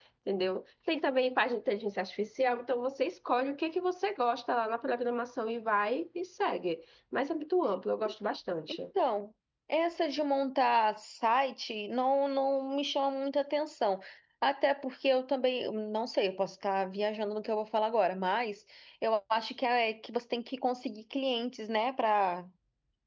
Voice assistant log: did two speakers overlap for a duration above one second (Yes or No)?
No